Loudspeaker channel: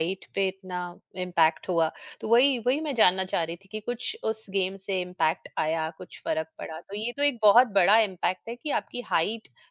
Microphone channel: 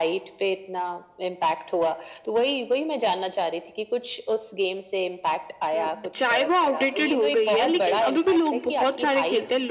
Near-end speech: present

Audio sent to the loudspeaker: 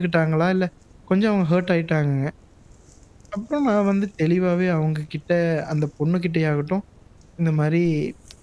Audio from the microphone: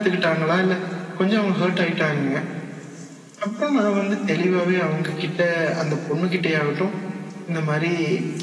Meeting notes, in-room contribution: none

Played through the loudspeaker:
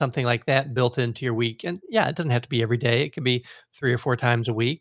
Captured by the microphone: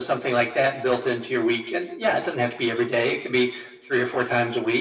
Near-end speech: none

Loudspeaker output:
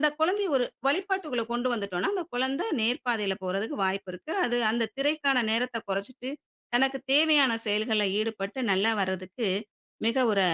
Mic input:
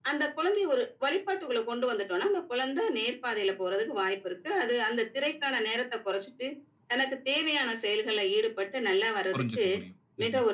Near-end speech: present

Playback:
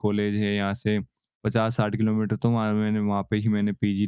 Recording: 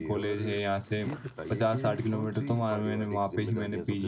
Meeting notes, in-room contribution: present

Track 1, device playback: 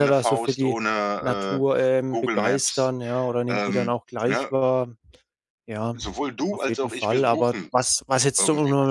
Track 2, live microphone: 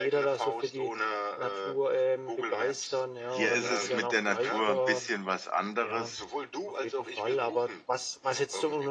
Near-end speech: present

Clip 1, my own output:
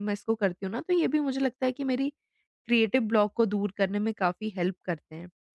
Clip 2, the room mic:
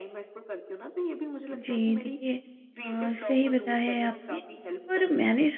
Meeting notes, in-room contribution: present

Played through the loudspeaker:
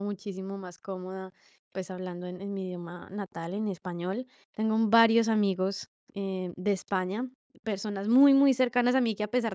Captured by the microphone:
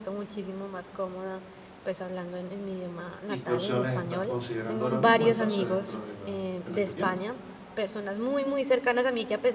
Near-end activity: present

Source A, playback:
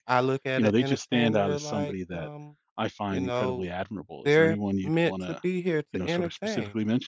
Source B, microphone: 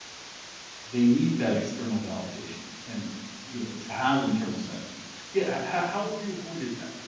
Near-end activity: present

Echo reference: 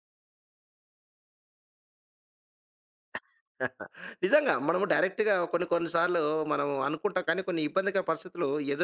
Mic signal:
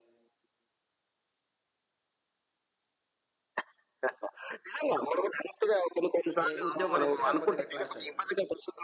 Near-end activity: present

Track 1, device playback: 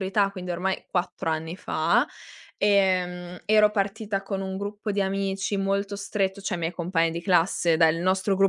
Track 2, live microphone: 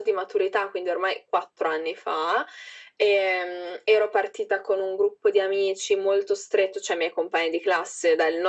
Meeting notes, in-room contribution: none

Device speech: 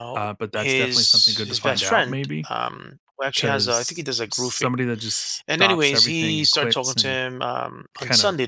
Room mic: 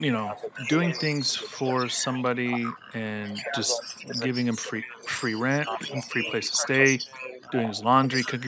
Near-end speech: present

